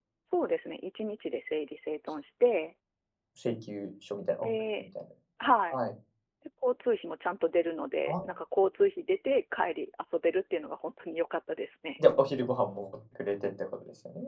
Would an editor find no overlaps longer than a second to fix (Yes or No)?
Yes